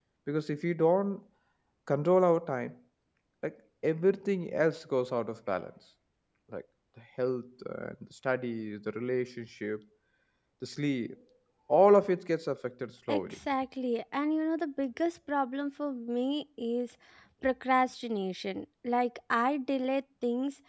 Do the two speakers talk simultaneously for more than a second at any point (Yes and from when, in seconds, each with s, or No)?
No